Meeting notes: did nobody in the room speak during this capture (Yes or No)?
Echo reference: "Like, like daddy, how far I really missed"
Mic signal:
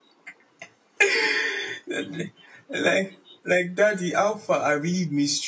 Yes